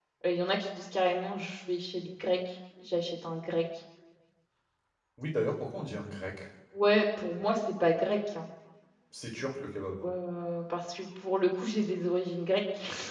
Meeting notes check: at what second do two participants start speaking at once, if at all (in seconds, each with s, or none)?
none